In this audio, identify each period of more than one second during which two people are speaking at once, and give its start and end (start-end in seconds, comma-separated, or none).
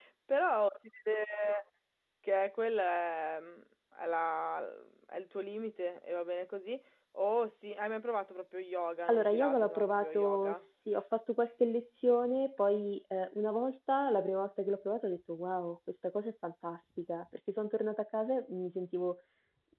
9.1-10.6